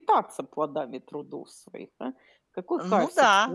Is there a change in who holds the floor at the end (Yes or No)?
No